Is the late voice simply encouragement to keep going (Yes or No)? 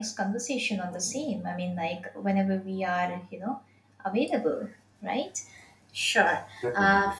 Yes